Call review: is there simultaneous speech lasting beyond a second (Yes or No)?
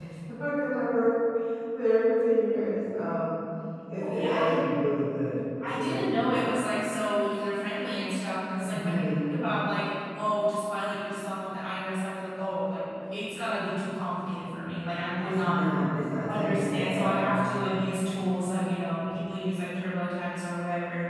Yes